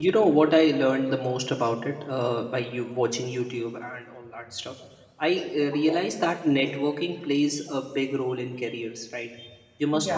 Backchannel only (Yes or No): Yes